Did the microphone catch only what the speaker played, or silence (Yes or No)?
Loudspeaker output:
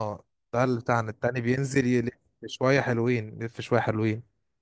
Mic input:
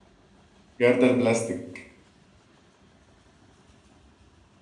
No